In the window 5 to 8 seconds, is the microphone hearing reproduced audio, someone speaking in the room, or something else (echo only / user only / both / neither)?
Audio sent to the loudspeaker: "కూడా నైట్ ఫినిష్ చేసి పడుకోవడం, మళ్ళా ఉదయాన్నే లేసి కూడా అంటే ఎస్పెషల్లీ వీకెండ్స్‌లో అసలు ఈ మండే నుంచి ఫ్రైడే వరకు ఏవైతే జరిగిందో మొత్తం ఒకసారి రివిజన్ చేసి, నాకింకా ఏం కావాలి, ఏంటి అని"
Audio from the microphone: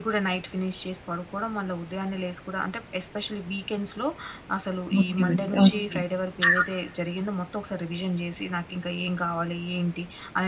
both